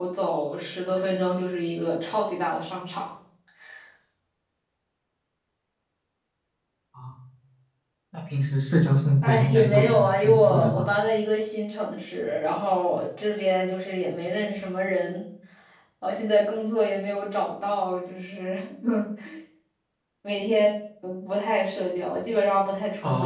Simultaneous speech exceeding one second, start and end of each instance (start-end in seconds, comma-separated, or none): 9.2-10.8